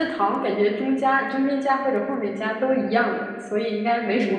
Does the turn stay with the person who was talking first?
No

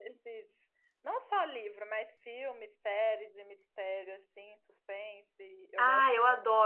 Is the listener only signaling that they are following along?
No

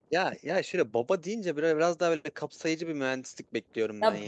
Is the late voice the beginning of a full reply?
Yes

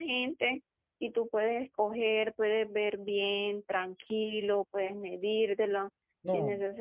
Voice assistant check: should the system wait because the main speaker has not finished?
Yes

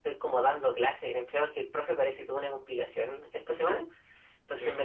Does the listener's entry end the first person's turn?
No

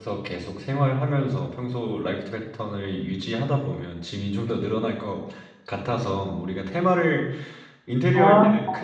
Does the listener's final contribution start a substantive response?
No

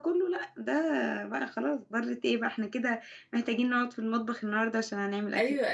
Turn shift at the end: Yes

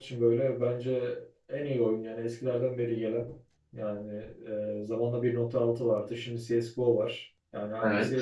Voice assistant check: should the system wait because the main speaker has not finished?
Yes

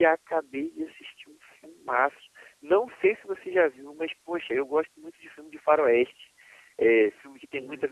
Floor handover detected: No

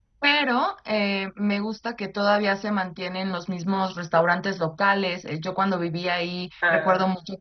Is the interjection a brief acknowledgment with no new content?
Yes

